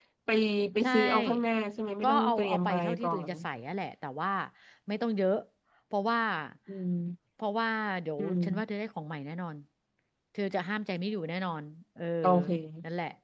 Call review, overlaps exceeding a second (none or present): present